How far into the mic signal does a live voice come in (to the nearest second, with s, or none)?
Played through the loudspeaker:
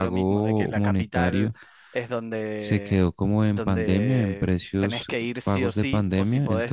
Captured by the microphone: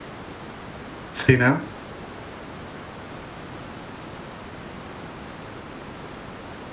1 s